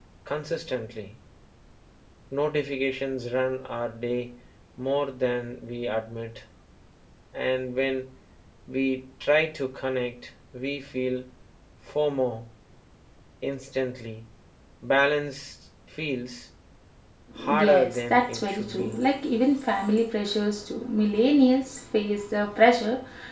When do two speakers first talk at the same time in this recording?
17.6 s

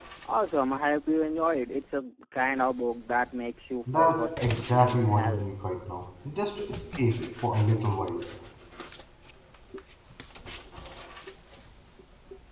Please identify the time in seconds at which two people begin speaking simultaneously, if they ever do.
3.9 s

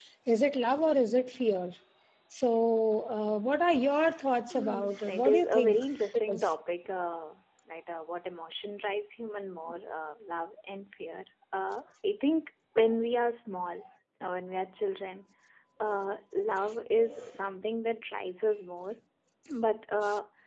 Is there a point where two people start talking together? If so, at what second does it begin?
4.5 s

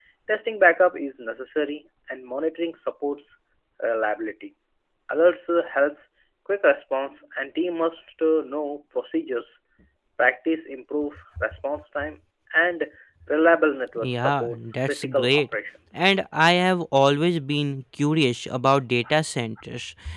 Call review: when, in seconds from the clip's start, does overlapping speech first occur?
14.0 s

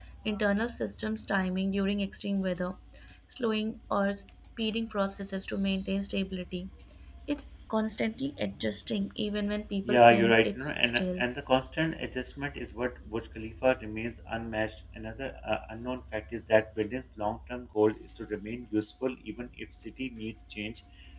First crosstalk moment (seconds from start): 9.8 s

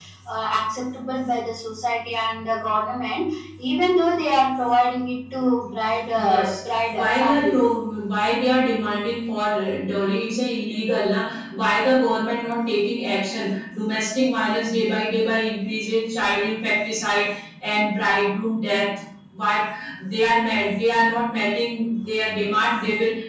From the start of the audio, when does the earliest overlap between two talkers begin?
6.1 s

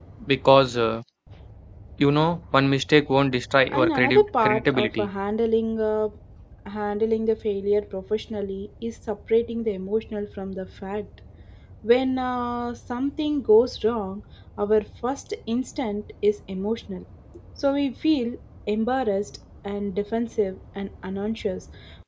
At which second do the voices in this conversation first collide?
3.7 s

